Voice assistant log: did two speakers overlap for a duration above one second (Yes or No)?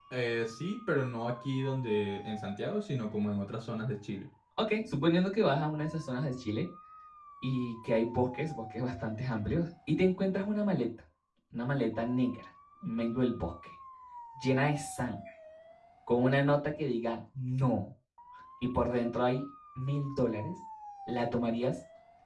No